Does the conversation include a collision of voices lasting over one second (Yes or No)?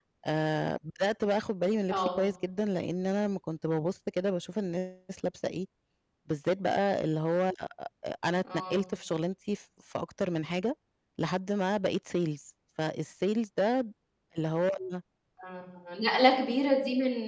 No